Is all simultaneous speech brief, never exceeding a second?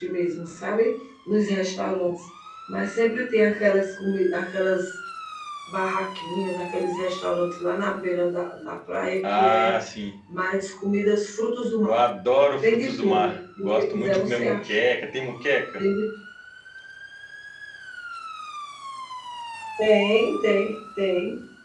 No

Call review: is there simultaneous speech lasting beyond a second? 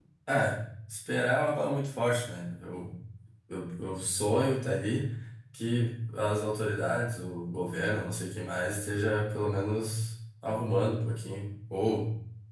No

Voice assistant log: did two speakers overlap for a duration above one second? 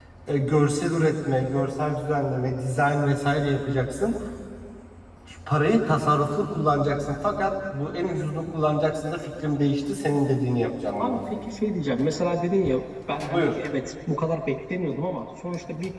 No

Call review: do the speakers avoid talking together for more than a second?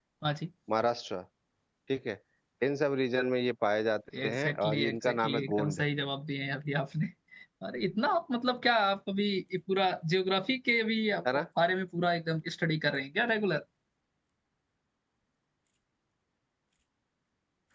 No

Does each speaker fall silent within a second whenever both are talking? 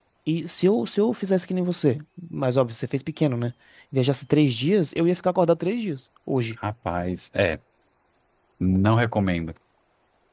Yes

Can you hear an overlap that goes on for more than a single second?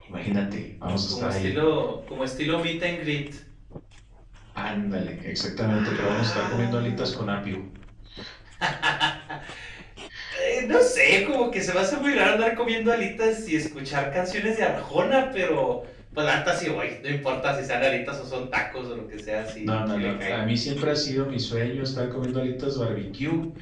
Yes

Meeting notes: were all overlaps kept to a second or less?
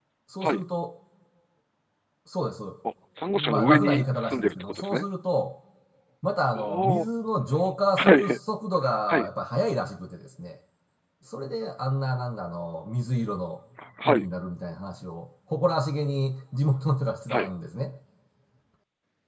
No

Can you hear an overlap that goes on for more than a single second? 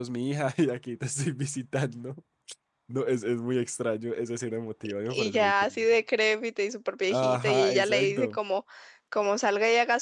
Yes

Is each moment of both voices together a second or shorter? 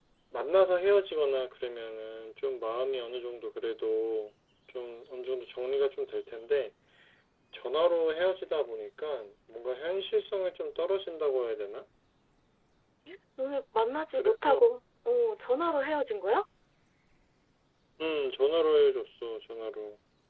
Yes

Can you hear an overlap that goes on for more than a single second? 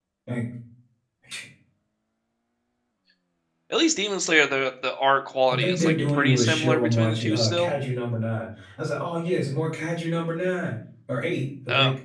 Yes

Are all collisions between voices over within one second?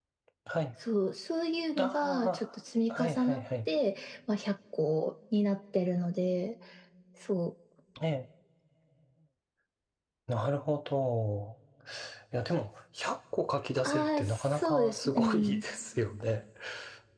No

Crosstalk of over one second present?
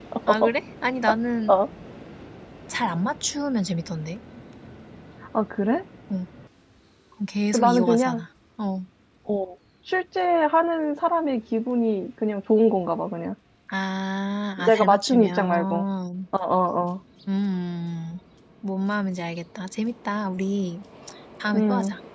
Yes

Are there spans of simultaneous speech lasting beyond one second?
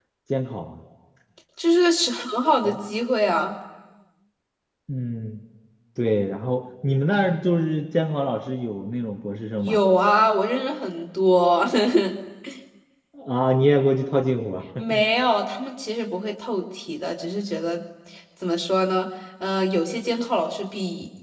No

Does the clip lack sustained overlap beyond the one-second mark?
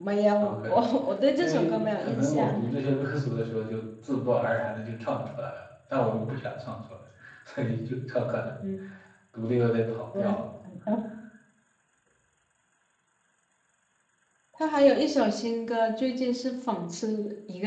No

